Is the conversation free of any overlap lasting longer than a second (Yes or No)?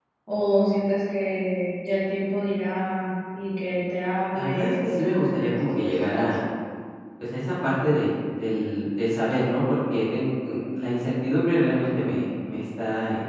No